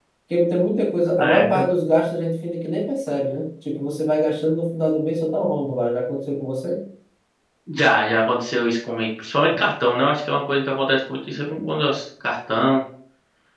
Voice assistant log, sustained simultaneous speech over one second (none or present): none